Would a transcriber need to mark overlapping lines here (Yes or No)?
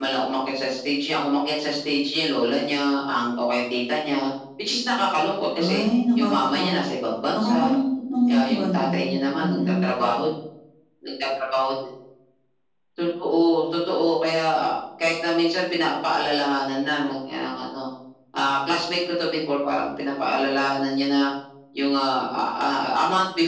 Yes